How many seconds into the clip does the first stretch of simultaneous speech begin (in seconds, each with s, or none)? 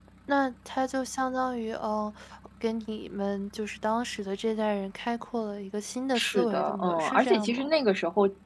6.2 s